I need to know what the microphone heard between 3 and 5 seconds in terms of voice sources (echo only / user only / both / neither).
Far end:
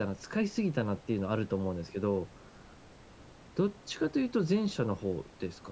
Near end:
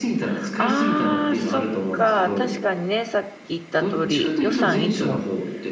both